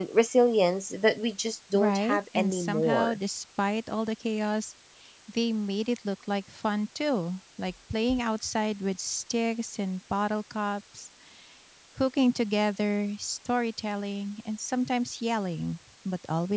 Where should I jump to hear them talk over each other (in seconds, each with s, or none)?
1.7 s